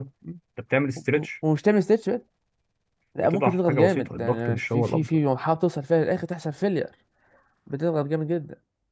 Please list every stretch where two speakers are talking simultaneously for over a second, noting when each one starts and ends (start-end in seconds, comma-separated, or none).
3.2-5.2